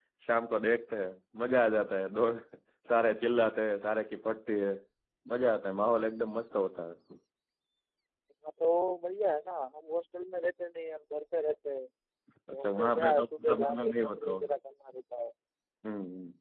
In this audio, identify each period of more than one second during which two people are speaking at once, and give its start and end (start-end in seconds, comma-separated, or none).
12.5-14.5